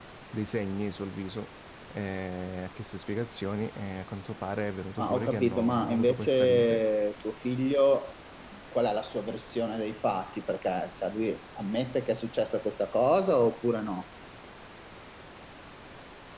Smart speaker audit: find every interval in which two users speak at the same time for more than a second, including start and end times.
5.0-6.8

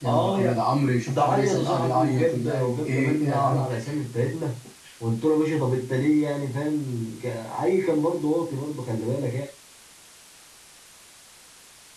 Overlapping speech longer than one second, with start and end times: 1.1-3.6

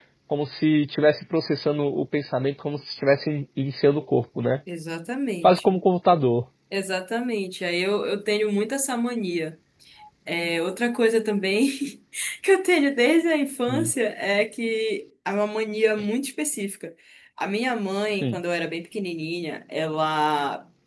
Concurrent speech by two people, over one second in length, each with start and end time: none

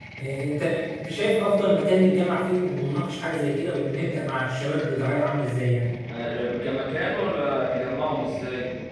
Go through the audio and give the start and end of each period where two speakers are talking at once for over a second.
none

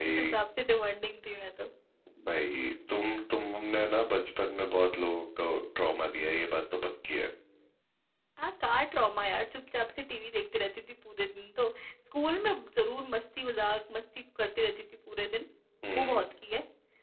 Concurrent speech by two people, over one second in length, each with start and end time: none

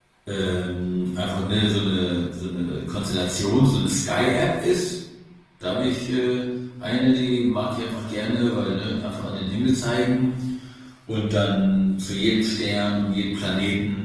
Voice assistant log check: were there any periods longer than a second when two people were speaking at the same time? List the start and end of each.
none

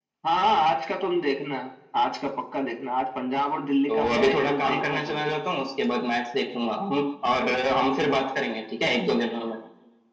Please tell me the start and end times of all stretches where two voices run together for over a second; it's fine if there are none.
3.9-5.3

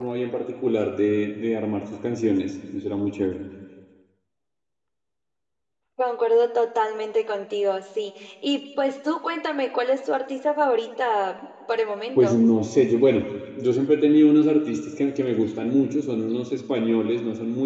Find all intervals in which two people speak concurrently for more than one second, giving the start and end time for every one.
none

